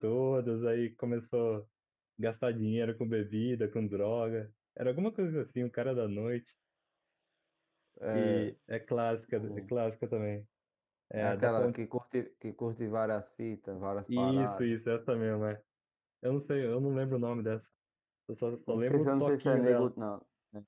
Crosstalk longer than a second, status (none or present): present